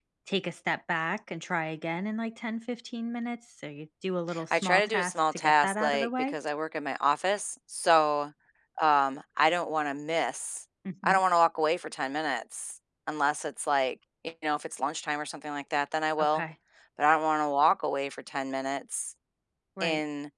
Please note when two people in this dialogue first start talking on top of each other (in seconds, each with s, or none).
4.3 s